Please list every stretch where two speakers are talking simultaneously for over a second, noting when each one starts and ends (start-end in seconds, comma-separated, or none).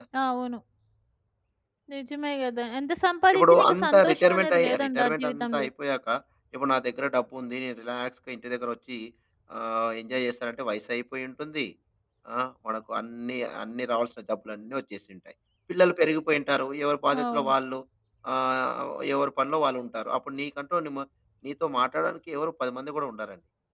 3.3-5.7